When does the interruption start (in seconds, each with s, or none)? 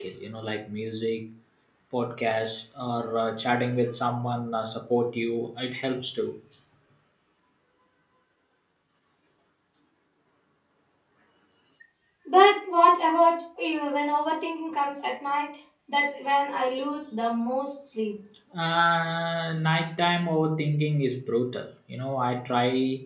none